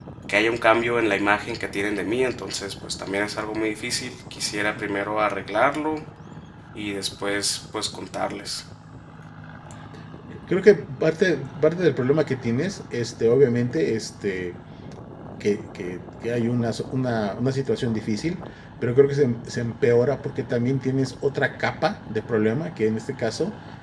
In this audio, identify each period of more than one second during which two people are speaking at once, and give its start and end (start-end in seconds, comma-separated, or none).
none